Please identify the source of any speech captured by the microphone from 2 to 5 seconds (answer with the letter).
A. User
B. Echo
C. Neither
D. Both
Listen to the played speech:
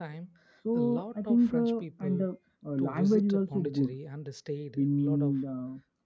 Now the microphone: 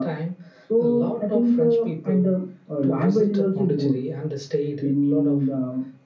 B